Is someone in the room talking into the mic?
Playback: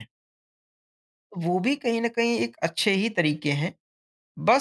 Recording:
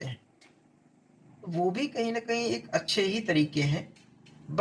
No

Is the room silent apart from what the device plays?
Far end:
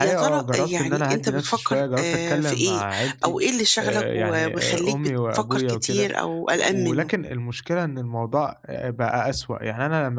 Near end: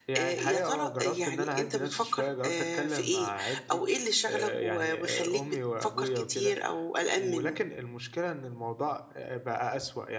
Yes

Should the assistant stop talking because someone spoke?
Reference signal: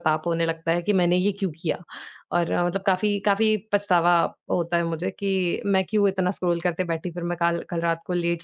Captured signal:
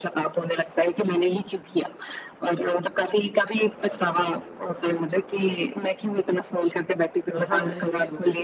Yes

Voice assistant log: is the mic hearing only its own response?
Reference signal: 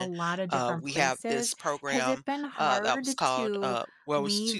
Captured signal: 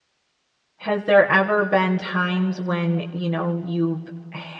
No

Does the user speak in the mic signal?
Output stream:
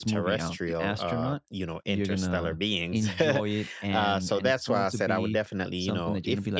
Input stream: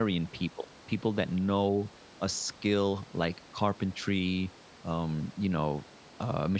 Yes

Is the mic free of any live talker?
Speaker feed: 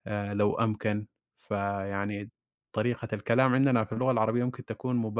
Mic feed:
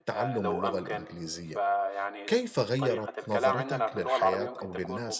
No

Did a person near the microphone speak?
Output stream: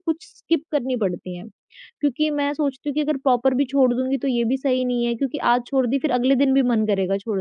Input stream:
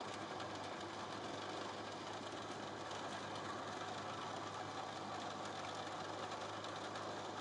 No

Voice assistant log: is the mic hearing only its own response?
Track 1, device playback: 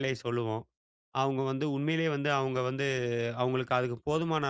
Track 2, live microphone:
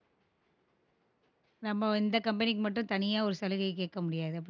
No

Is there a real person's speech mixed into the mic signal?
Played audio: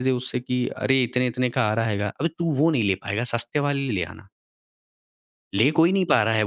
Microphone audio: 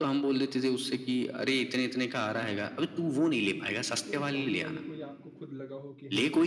Yes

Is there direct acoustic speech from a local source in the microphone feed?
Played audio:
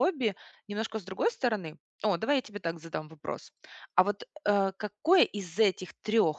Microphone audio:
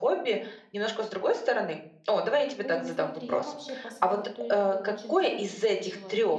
Yes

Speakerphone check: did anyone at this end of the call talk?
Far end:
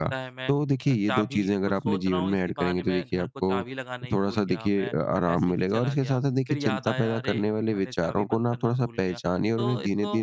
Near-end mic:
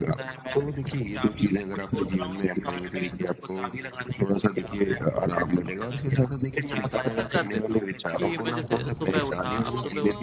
Yes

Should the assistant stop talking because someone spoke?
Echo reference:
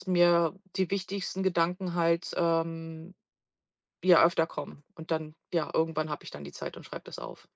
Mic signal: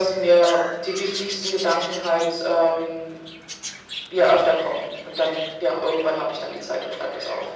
No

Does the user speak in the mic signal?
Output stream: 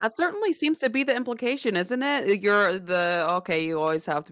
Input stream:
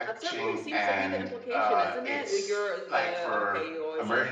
Yes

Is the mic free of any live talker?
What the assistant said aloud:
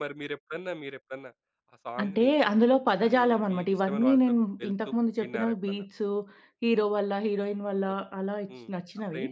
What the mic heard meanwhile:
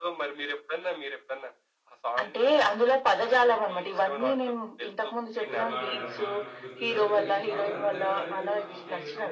No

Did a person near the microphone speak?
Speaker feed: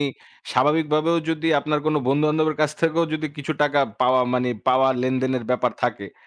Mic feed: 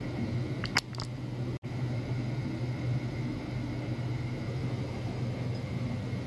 No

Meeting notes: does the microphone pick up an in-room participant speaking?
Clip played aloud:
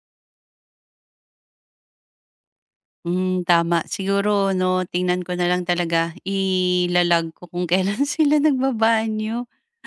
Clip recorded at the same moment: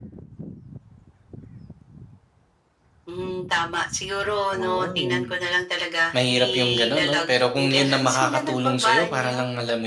Yes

